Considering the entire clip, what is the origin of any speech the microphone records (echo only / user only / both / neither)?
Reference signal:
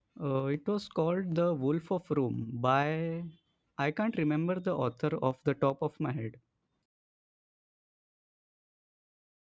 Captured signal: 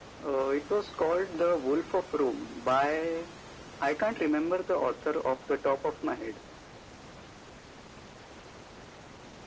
echo only